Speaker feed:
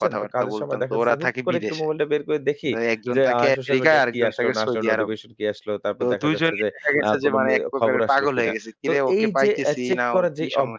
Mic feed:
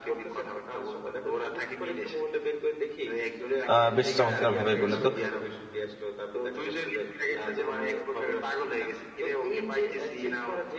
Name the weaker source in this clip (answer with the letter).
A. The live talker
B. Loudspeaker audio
B